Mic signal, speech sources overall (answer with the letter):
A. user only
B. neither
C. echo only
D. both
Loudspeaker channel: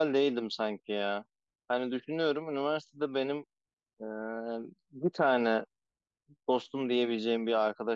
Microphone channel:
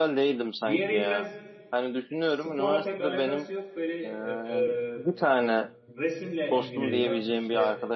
D